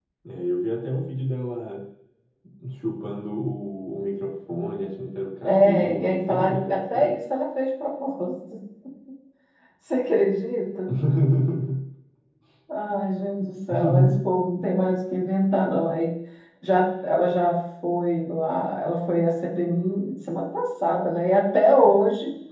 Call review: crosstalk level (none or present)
present